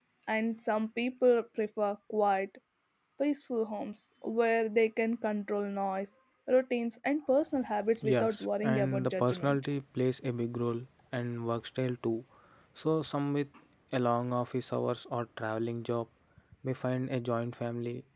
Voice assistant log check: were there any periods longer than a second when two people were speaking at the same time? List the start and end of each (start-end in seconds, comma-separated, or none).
8.1-9.6